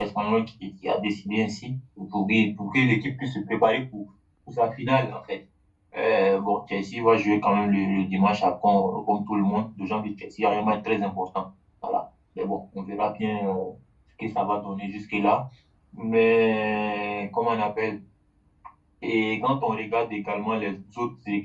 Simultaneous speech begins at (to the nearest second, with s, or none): none